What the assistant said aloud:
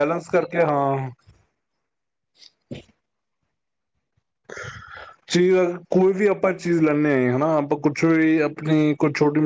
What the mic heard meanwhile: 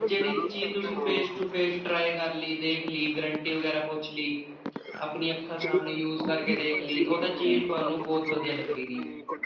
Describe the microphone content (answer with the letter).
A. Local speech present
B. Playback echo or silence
A